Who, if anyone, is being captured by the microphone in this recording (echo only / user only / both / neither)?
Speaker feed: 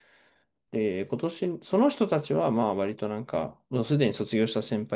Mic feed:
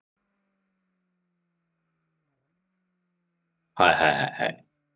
user only